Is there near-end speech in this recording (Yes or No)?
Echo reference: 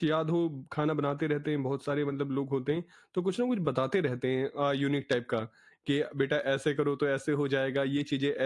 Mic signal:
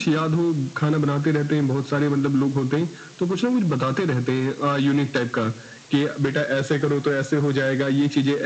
No